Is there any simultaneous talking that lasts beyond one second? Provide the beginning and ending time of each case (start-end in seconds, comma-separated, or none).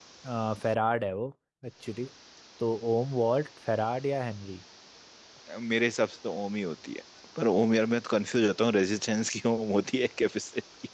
none